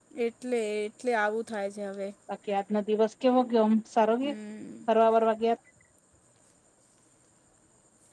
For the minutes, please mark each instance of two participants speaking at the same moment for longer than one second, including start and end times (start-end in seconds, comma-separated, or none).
none